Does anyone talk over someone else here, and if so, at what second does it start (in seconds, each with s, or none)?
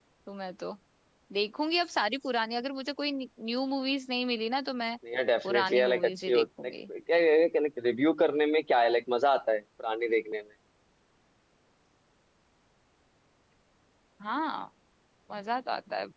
5.4 s